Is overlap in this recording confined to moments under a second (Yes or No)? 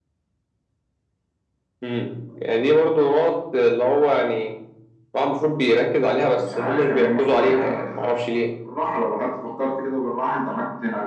No